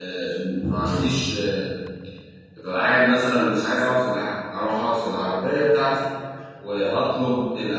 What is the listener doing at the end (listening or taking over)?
listening